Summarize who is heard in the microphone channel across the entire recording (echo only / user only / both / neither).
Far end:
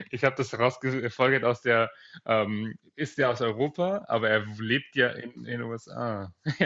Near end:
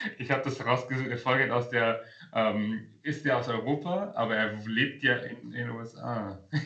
echo only